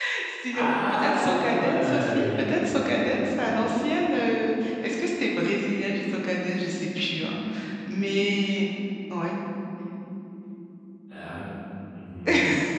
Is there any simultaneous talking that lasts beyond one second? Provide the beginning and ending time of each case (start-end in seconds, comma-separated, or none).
0.5-4.2